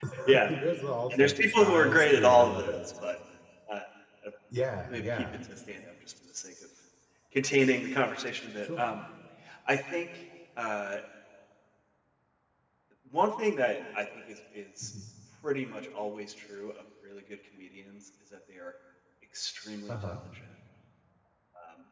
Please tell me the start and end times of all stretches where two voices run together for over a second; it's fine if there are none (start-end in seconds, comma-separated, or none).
1.1-2.8